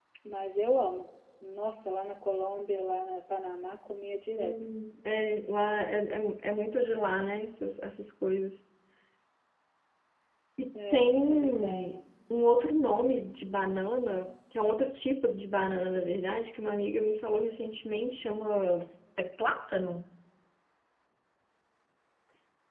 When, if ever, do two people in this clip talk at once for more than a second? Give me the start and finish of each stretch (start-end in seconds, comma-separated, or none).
10.8-12.0